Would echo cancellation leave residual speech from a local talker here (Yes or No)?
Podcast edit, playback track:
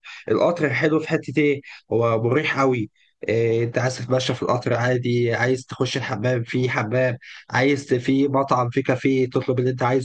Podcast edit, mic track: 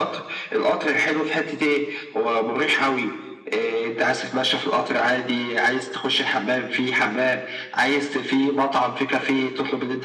No